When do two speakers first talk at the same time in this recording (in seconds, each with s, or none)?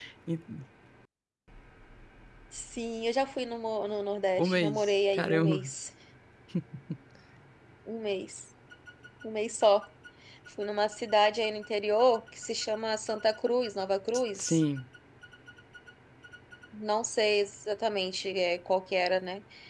4.4 s